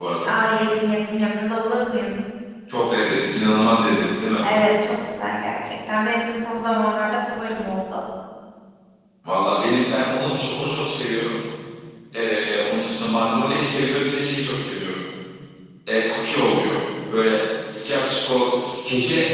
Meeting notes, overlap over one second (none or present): none